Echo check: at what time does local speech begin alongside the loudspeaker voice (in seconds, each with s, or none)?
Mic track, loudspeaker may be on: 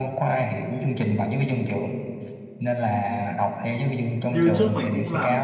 4.3 s